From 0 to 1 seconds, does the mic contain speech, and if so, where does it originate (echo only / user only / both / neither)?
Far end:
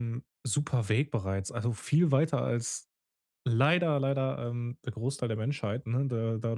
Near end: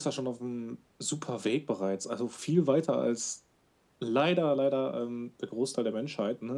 echo only